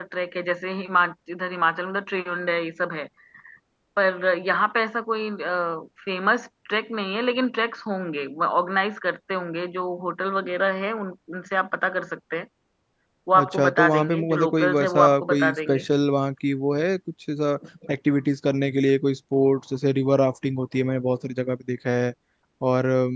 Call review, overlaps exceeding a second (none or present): present